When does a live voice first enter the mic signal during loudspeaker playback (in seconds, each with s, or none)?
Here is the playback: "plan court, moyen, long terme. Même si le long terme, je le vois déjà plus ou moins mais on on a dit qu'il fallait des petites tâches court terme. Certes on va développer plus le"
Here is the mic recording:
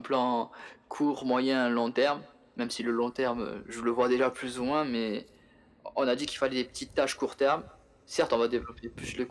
none